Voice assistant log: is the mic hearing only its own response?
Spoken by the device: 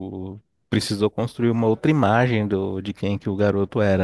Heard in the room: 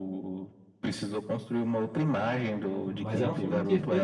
No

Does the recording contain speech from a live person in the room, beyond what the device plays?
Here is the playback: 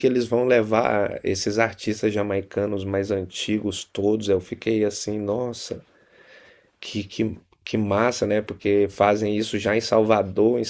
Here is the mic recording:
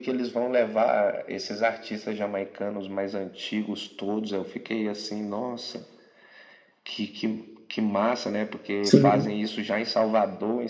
Yes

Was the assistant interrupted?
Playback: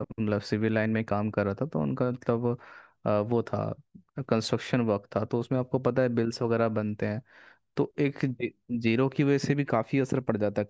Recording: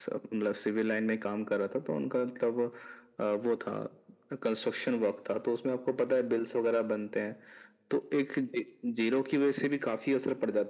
No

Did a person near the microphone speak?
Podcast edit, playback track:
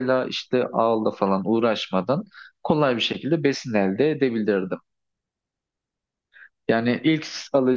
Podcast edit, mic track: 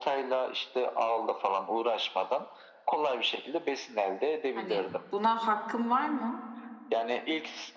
Yes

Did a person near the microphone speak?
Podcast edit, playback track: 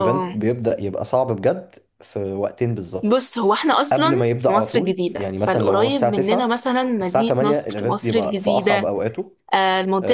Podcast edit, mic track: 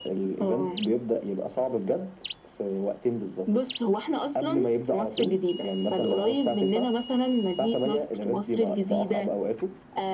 No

